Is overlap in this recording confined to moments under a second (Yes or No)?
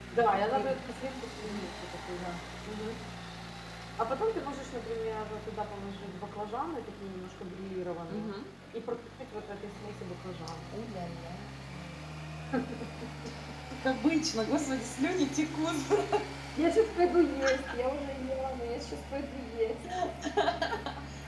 Yes